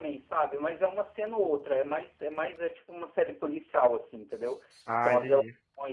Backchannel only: Yes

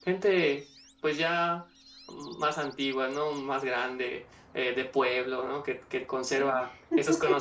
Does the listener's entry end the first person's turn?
No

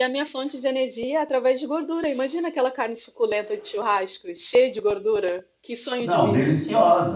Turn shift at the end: Yes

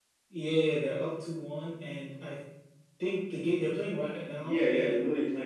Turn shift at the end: Yes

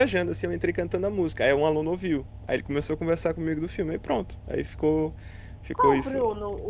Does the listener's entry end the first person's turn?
Yes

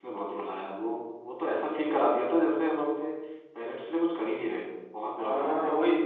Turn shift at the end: Yes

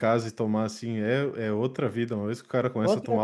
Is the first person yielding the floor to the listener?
No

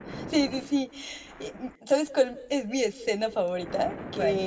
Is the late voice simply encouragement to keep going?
Yes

